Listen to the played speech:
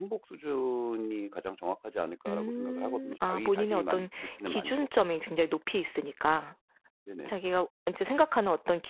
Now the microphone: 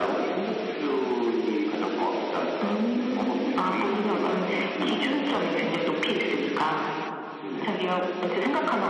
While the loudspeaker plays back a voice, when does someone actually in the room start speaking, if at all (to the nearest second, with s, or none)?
none